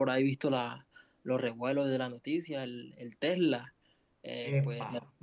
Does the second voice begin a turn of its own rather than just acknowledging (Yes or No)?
No